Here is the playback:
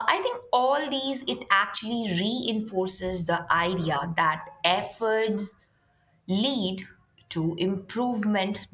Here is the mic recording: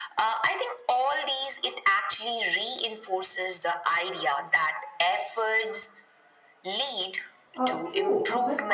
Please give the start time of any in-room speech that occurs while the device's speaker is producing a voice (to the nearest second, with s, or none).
8 s